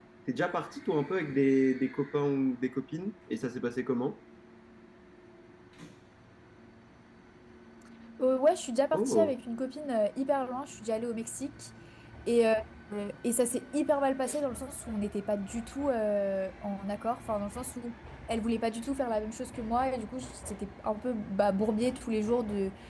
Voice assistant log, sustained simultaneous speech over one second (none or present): none